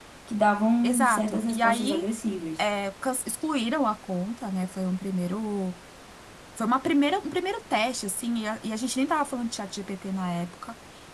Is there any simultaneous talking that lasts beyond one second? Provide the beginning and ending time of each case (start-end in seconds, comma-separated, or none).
0.8-2.0